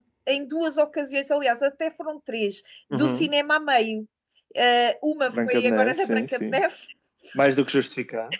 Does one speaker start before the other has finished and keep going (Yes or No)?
Yes